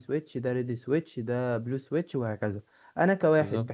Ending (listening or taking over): listening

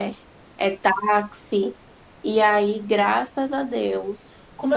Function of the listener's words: taking over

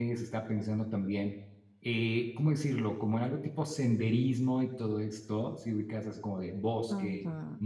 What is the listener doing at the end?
listening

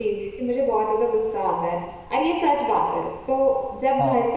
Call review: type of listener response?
listening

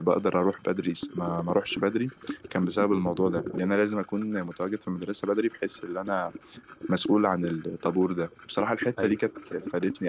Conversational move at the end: listening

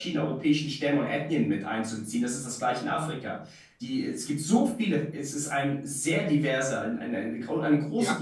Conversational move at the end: taking over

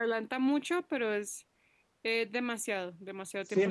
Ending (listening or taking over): taking over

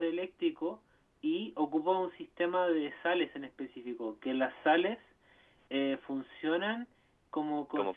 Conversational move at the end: listening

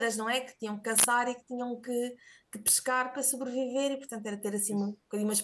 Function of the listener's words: listening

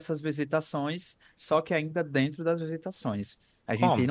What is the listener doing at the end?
listening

